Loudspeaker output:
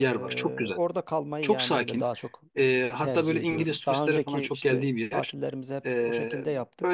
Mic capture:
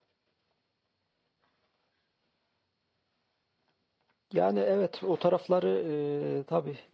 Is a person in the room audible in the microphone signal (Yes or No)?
Yes